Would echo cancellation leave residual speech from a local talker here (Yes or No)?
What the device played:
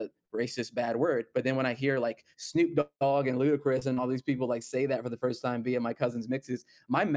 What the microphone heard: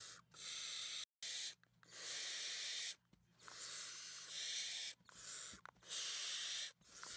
No